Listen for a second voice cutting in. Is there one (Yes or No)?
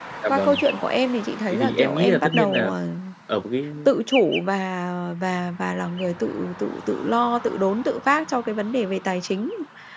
Yes